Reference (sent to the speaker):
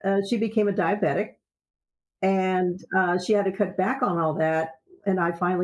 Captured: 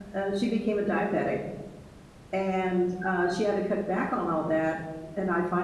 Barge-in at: none

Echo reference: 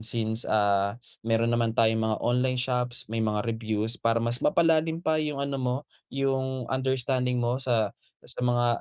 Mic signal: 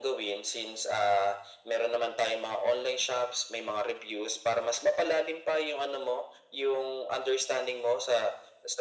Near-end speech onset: none

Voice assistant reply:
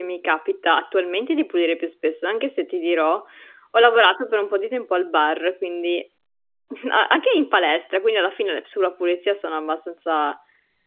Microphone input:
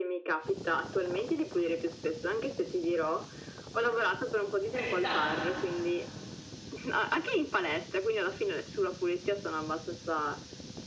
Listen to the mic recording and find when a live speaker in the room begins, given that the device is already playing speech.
5 s

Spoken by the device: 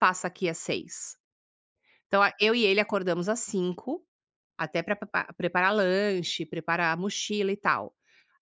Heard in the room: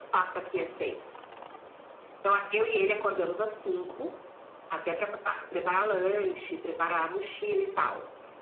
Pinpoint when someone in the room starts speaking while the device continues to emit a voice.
none

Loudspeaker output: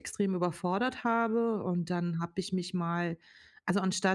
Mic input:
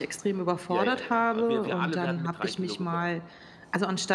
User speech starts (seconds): 1 s

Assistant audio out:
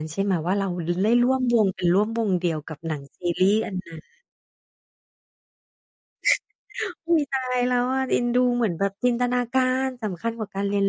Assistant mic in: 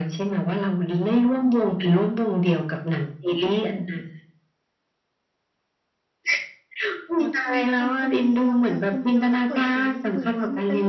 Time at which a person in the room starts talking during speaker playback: 7 s

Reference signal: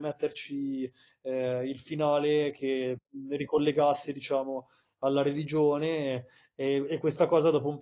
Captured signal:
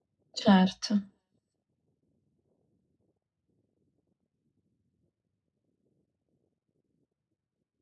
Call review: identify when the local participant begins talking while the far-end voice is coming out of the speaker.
0 s

